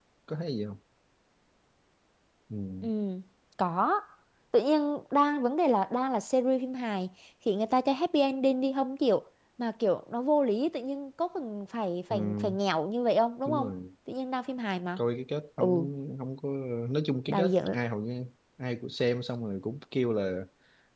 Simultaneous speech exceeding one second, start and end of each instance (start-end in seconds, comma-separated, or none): none